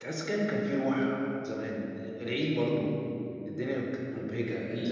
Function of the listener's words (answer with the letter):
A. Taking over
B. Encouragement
A